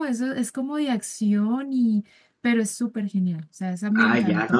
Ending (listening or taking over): taking over